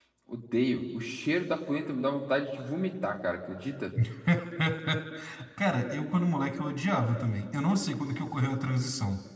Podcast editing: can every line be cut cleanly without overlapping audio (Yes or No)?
Yes